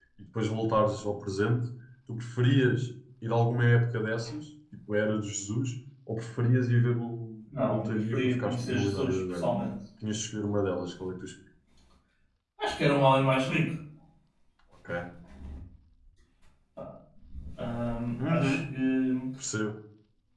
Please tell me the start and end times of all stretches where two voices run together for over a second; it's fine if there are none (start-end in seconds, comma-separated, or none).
7.7-9.5